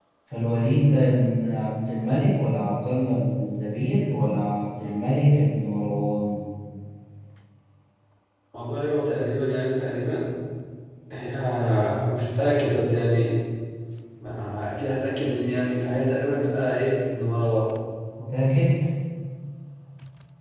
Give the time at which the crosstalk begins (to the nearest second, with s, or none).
none